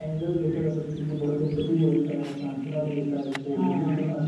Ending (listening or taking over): listening